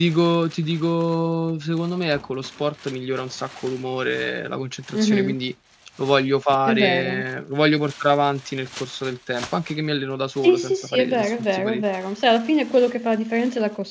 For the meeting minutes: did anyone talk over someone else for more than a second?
Yes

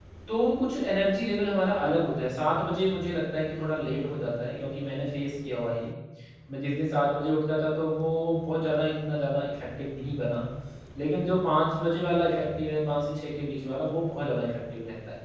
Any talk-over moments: No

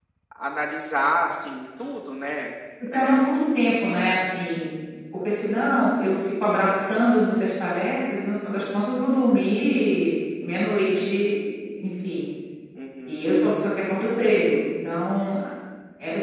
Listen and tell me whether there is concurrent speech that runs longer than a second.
No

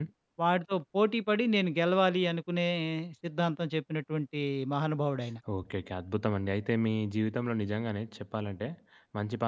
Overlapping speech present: No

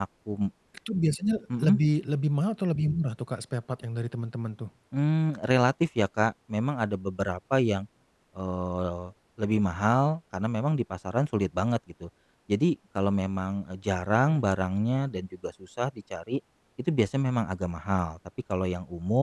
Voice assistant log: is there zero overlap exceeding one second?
Yes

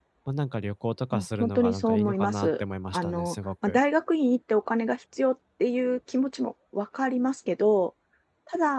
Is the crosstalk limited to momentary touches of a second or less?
No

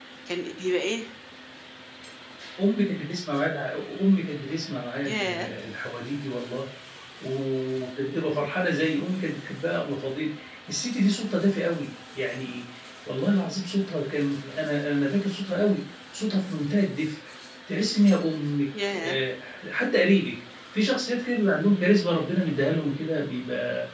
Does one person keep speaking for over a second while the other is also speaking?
No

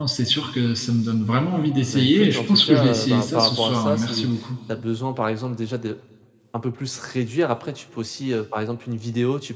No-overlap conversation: No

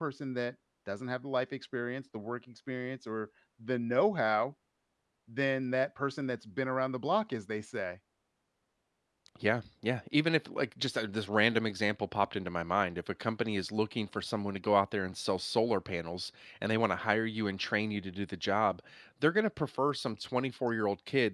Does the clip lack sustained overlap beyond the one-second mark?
Yes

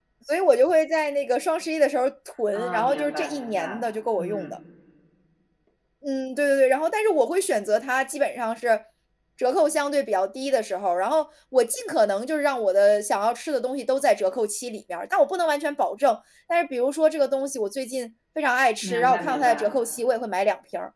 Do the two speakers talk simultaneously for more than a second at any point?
Yes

